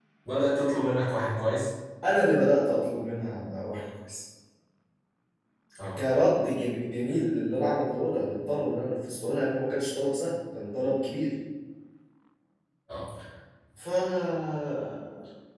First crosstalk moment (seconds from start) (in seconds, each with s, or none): none